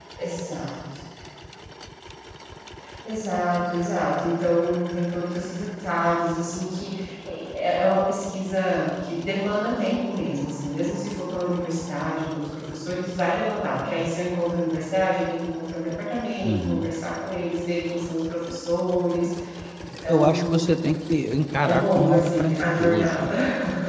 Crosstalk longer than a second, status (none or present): present